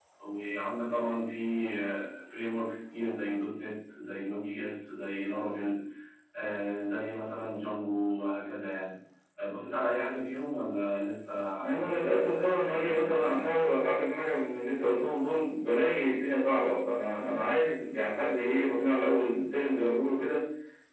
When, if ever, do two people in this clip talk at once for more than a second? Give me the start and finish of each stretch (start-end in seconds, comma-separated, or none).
11.6-13.7